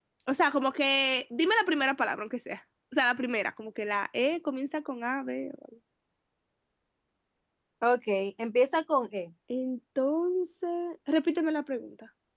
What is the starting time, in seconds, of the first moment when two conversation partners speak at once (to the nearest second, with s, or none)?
none